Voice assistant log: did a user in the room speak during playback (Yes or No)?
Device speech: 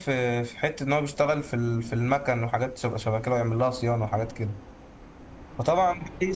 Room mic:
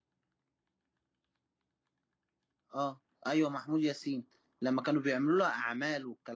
Yes